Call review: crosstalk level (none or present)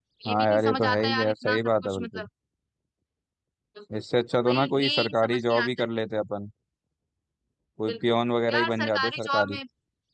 present